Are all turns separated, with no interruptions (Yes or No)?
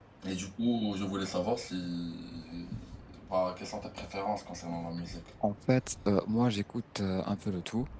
Yes